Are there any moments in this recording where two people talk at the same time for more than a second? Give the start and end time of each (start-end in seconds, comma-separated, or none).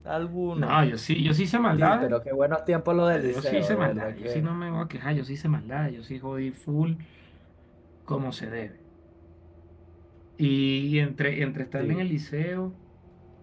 3.1-4.5